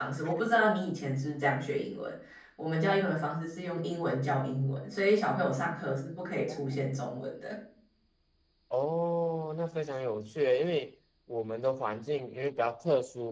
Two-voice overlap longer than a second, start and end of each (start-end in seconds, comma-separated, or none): none